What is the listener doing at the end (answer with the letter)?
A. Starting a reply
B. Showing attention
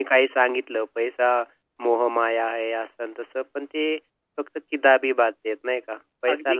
A